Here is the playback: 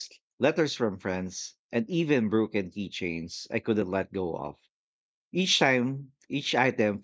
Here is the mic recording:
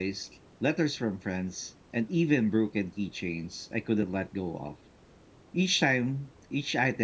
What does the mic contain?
echo only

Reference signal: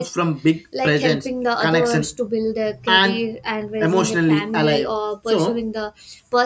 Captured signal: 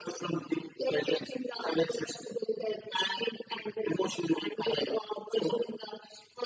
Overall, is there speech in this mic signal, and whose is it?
echo only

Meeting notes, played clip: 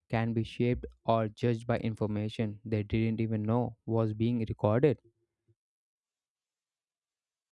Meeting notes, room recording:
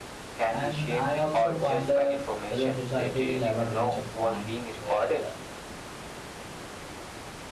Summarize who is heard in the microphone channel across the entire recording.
both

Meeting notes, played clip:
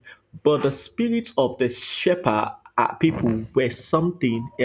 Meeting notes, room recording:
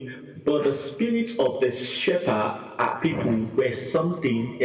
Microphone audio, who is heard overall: echo only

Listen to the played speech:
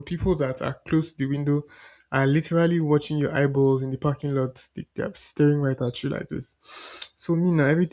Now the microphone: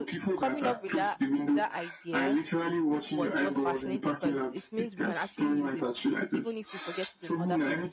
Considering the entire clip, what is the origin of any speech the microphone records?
both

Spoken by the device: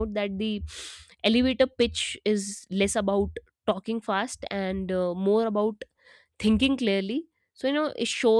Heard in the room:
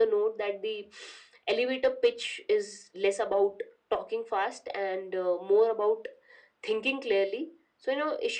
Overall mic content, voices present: echo only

